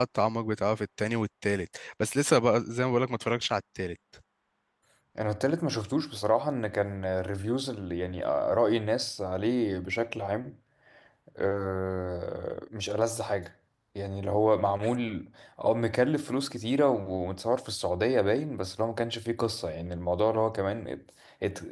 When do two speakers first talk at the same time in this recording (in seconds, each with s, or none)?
none